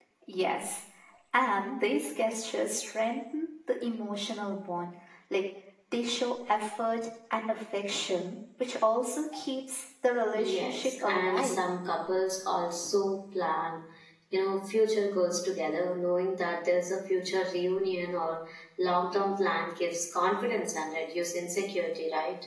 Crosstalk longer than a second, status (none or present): present